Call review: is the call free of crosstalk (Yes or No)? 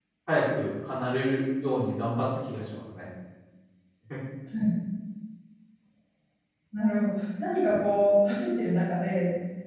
Yes